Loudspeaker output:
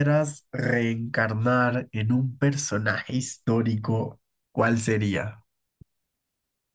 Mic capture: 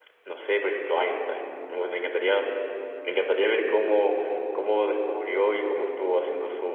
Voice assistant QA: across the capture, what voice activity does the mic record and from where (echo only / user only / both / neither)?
user only